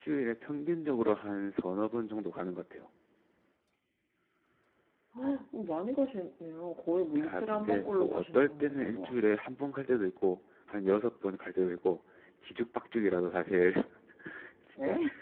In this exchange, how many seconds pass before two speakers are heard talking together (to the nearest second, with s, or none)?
7 s